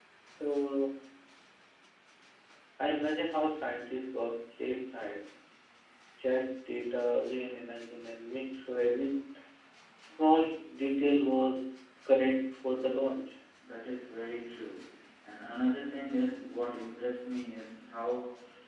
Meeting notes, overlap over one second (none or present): none